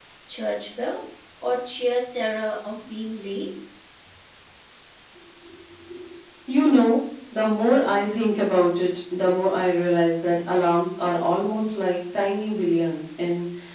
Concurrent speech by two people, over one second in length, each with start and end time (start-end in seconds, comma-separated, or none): none